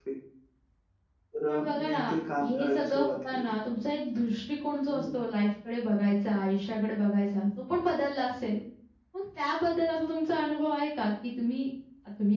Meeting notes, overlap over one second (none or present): present